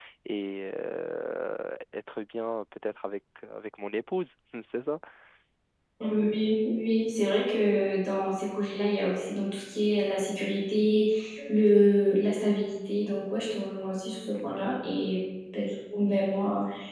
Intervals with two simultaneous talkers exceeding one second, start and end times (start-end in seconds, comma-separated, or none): none